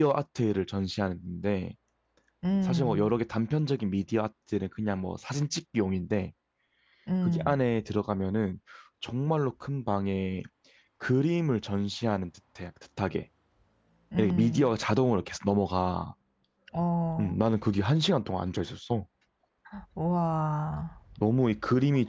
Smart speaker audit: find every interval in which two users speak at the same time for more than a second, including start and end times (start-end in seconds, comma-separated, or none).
none